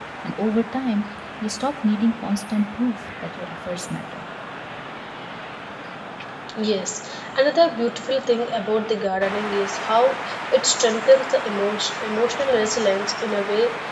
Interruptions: none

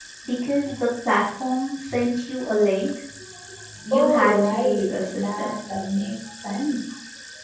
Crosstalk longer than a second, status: present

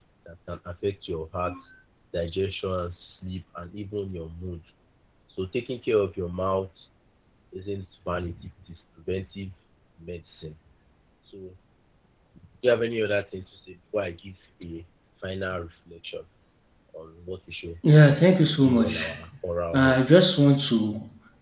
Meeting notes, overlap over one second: none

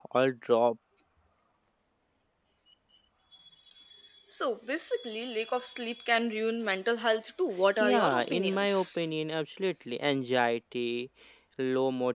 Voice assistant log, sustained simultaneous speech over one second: present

